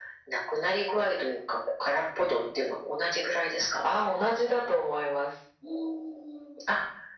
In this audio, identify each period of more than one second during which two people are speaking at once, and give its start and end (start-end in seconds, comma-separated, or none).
none